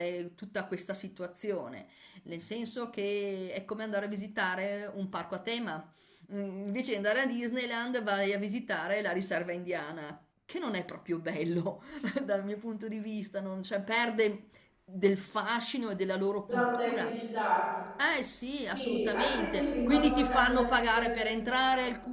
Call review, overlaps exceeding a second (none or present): present